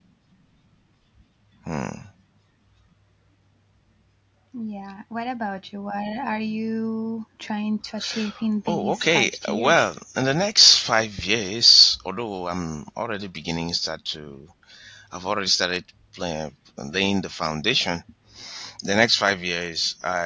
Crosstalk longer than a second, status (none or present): present